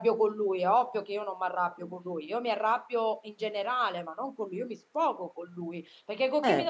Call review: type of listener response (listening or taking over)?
listening